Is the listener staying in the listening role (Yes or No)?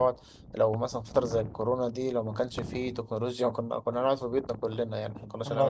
No